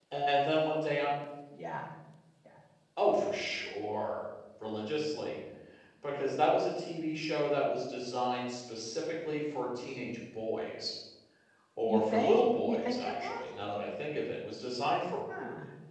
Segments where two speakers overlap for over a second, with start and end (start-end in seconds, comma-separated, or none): 11.9-13.4